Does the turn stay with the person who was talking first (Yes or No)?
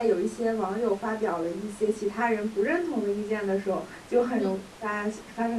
Yes